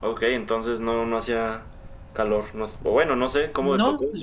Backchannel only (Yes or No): No